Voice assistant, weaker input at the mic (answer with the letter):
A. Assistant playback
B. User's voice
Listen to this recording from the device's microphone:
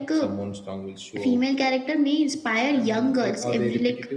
B